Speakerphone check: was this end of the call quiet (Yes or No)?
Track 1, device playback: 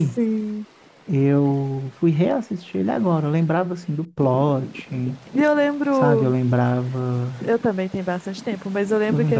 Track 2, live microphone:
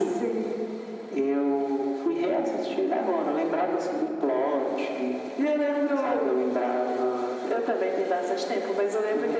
Yes